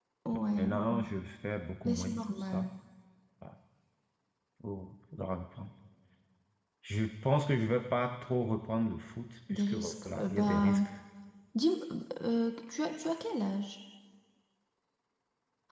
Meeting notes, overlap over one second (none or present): present